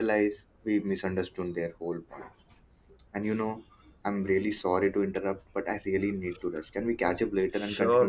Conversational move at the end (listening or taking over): taking over